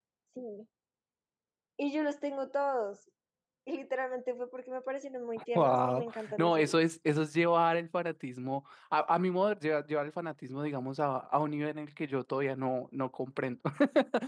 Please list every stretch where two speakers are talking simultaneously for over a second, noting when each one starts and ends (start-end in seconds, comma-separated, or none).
5.5-6.8